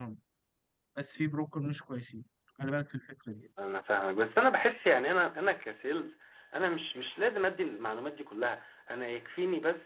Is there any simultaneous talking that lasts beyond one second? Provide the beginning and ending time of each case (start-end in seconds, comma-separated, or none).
none